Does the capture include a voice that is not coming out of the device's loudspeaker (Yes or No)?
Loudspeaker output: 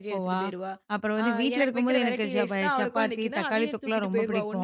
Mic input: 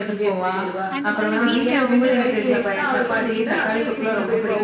Yes